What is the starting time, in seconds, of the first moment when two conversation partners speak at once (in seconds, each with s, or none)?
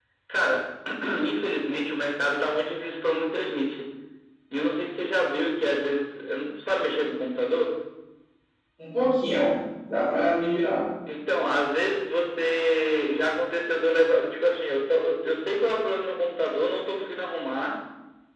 none